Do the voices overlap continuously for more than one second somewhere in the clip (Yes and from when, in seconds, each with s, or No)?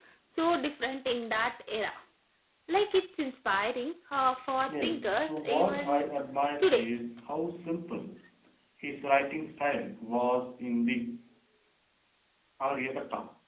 Yes, from 4.7 s